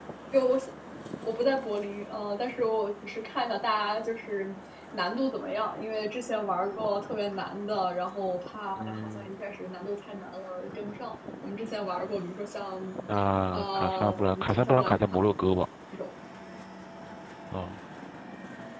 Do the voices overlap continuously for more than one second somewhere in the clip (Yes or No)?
Yes